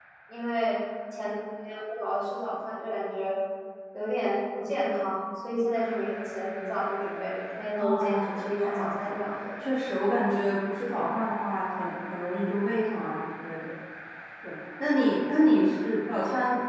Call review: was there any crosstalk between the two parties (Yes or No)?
Yes